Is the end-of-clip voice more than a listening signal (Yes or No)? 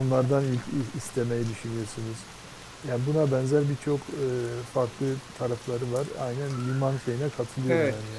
Yes